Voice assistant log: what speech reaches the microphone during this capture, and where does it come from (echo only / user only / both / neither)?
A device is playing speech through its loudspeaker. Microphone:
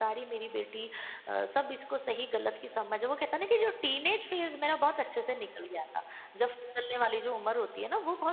echo only